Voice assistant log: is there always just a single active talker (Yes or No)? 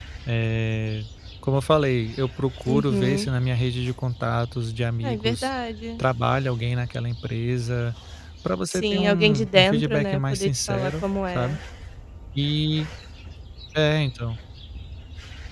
No